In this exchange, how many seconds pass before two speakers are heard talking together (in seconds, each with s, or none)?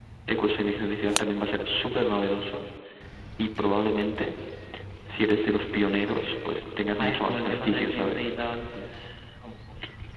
7.0 s